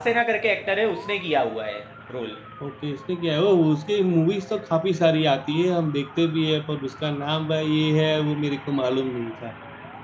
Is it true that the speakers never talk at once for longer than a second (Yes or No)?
Yes